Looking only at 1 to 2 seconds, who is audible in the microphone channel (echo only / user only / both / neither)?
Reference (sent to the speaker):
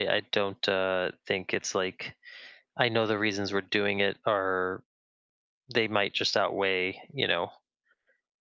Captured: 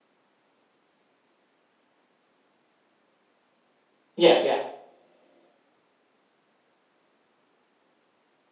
neither